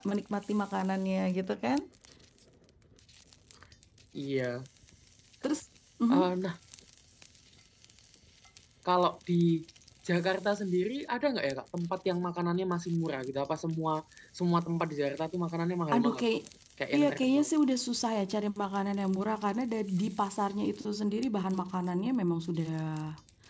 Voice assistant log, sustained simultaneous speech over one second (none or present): none